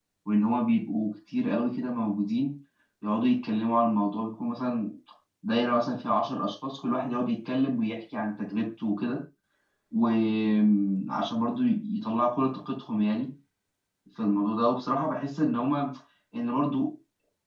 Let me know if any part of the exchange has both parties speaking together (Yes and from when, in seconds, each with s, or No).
No